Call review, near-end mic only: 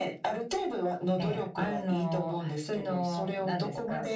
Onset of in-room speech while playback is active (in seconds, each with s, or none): none